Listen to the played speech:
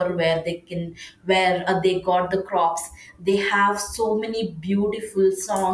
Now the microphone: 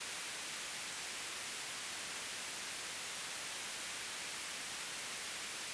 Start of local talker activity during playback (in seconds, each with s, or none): none